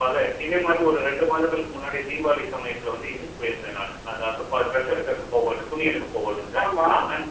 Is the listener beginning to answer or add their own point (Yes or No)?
No